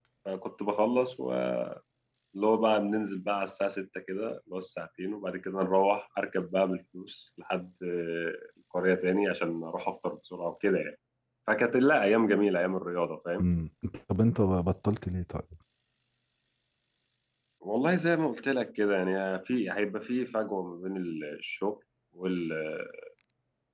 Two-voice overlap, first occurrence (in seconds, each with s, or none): none